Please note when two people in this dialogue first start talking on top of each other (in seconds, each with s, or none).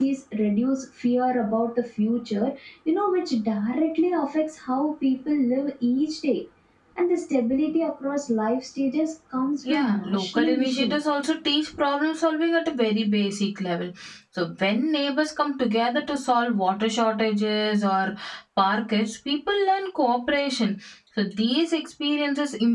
9.6 s